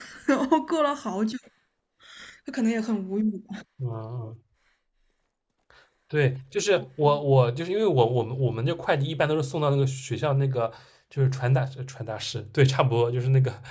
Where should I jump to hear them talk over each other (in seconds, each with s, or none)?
none